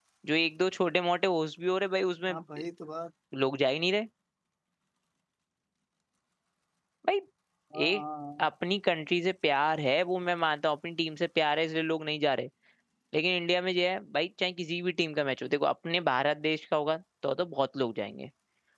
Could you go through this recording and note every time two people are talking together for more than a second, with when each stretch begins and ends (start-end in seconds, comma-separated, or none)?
none